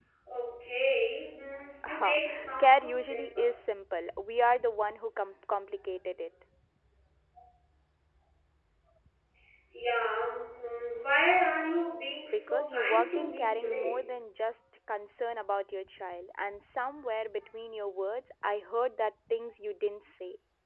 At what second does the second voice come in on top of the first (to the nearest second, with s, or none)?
2 s